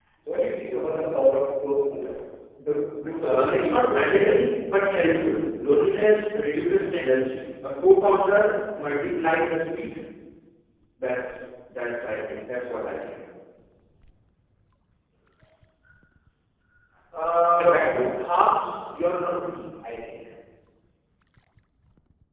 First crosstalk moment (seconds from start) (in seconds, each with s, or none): 3.2 s